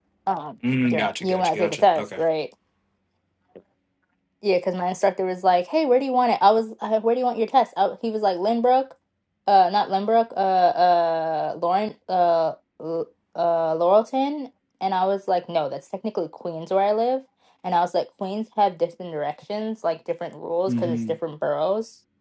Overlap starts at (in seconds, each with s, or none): 0.8 s